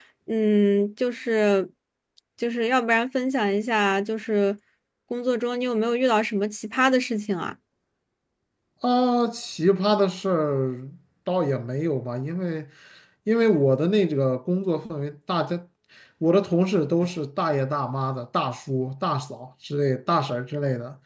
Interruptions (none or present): none